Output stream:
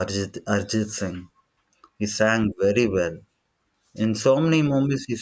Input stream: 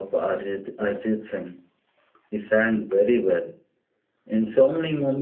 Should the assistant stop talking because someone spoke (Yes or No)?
No